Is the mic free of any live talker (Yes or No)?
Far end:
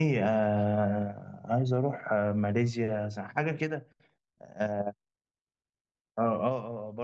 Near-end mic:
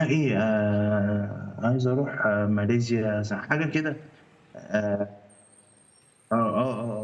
Yes